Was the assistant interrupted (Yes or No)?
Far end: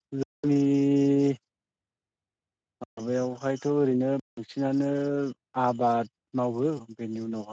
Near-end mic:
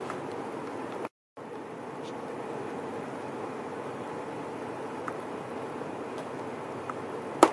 No